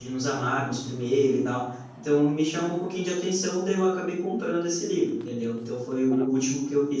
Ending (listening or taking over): listening